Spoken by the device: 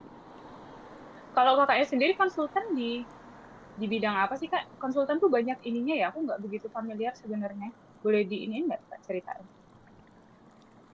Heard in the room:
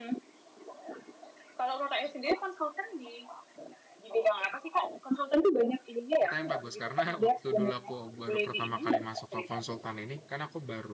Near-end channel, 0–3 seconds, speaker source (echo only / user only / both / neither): echo only